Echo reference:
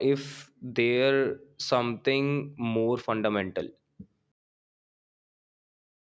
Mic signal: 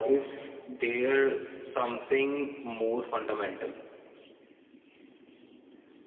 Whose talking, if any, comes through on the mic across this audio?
echo only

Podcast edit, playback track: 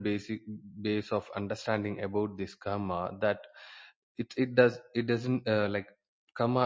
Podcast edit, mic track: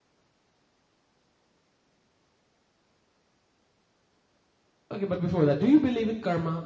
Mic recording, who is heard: user only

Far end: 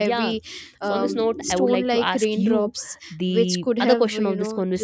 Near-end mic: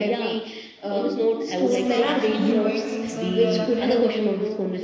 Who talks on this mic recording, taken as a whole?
both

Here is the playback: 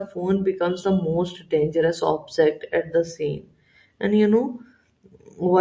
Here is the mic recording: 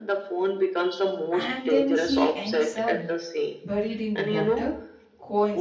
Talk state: both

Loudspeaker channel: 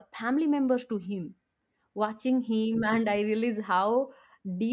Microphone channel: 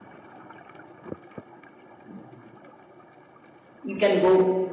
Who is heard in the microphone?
user only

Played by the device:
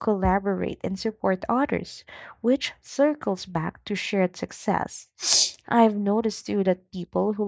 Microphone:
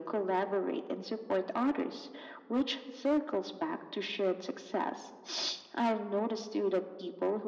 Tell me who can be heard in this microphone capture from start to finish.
echo only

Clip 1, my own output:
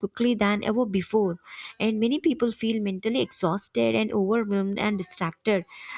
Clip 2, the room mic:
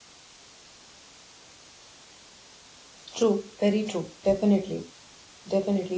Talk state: user only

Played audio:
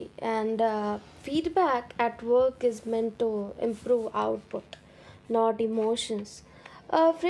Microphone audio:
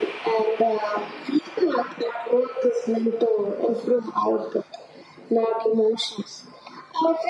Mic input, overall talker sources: echo only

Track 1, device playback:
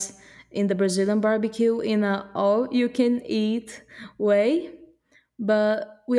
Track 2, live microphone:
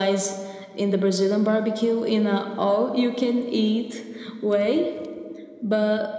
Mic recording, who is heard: echo only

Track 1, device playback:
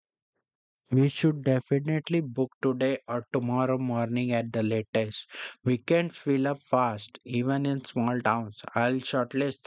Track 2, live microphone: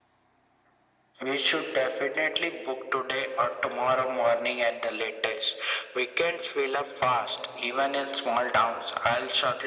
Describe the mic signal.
echo only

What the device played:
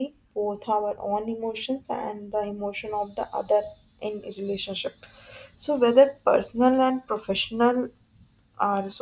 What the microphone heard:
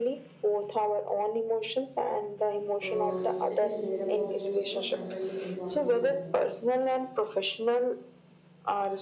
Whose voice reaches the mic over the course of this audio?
both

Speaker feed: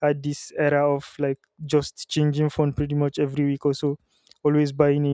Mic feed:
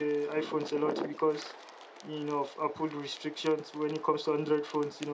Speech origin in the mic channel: user only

